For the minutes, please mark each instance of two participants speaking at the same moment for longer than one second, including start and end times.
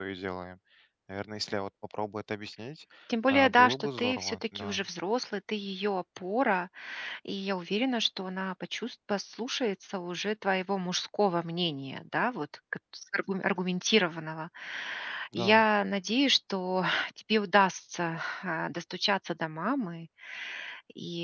3.3-4.8

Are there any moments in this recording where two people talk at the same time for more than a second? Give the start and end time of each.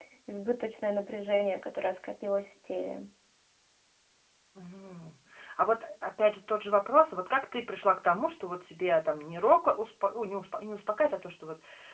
none

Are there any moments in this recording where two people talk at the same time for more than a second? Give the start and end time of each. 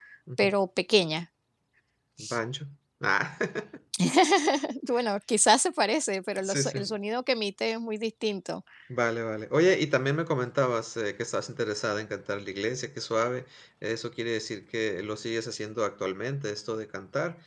none

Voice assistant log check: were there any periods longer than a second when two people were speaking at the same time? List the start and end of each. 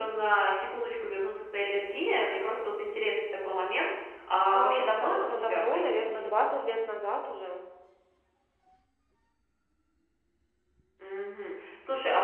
4.5-6.2

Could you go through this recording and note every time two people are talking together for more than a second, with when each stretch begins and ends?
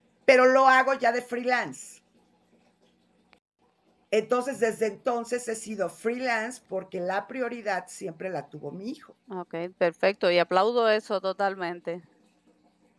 none

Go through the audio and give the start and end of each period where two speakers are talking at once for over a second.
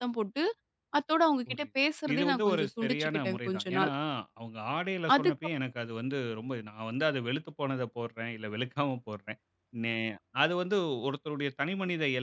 2.1-3.9

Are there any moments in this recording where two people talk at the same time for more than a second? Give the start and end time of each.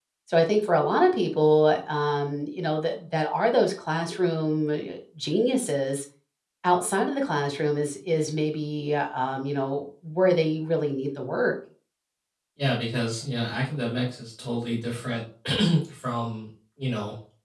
none

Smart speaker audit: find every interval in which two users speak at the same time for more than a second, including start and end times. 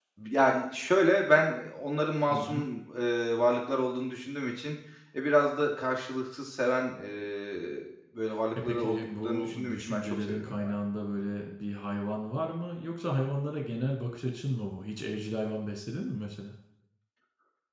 8.6-10.7

